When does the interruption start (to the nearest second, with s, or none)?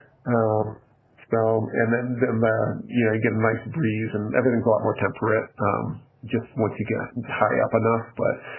none